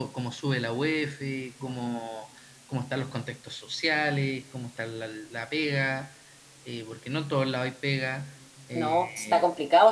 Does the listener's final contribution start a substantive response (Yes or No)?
Yes